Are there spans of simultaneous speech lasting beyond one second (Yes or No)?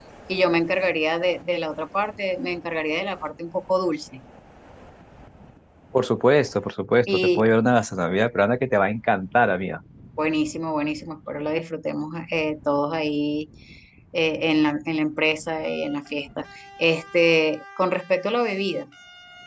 No